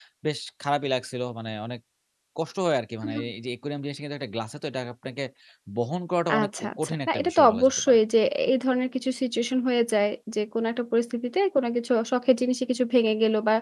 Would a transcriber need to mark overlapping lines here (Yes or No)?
Yes